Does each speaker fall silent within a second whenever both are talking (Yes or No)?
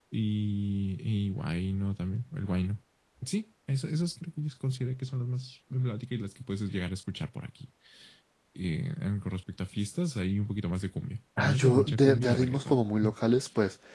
No